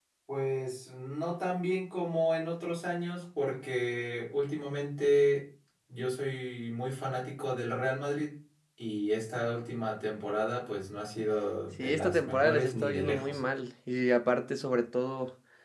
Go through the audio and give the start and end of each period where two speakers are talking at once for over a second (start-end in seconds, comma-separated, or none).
11.8-13.4